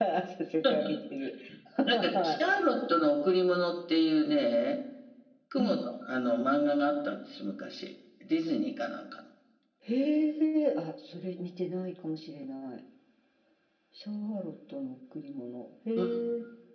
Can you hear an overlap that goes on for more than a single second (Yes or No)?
No